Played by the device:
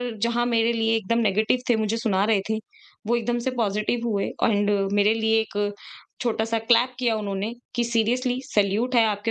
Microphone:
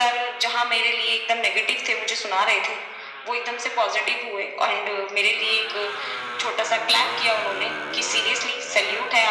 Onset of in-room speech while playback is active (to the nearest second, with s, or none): none